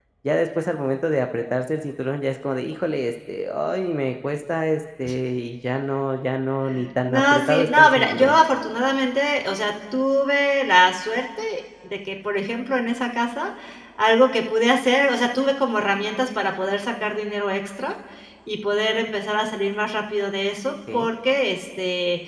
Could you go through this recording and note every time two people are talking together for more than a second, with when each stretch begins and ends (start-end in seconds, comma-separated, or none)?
7.1-8.4